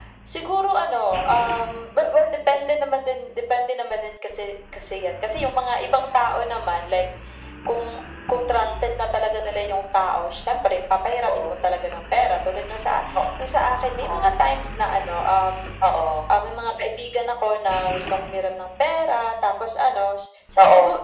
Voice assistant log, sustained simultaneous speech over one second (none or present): none